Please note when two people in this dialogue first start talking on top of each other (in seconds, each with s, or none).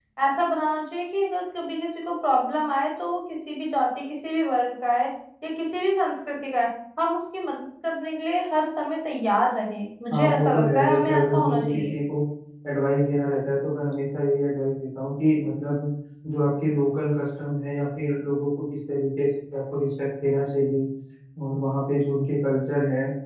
10.1 s